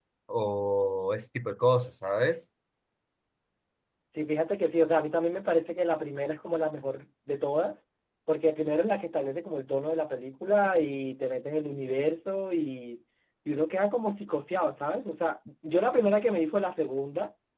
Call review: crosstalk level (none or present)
none